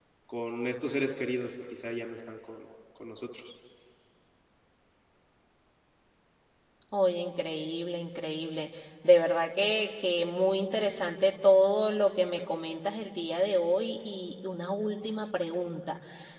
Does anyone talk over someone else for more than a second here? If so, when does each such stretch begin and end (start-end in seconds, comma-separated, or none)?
none